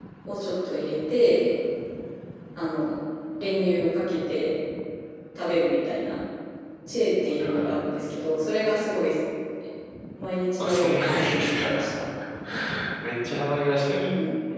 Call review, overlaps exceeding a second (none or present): present